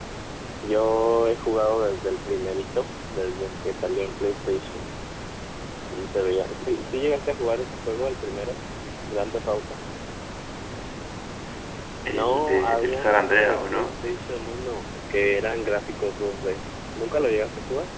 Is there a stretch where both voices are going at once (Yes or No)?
Yes